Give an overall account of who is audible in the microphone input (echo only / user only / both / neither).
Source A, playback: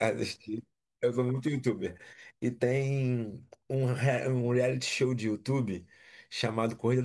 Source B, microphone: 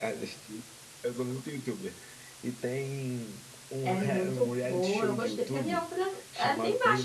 both